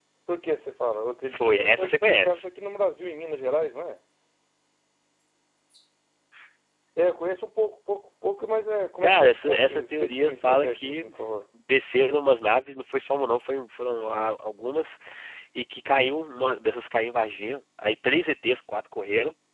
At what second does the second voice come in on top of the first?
1.3 s

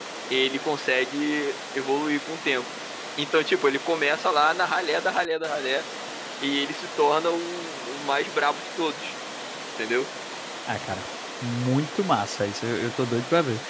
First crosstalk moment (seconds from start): none

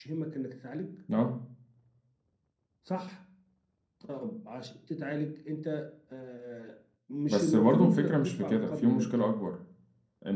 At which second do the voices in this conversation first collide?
7.3 s

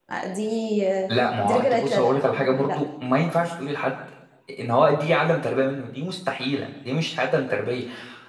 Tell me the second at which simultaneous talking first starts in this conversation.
1.4 s

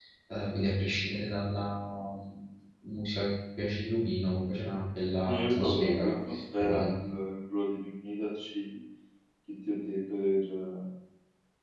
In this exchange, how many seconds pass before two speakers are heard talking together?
5.2 s

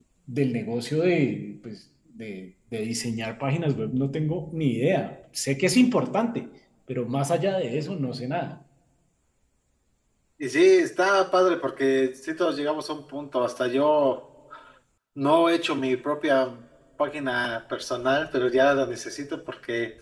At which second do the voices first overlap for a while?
none

